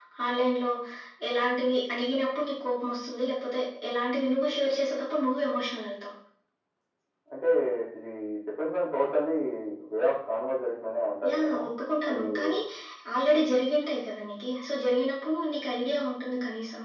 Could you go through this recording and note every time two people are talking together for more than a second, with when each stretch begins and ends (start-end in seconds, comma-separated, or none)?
none